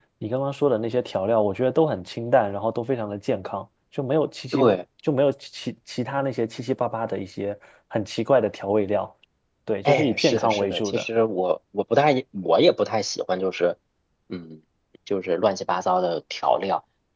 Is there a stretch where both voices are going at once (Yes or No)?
Yes